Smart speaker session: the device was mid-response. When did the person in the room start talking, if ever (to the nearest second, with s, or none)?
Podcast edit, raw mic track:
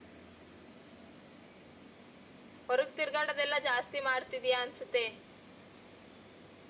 3 s